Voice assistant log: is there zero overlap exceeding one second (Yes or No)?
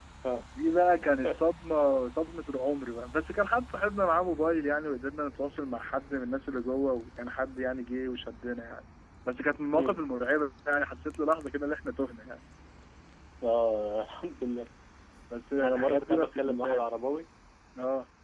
No